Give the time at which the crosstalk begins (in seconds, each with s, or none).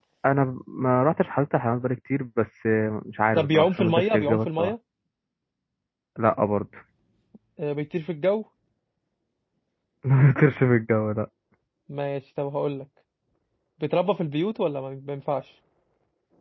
3.4 s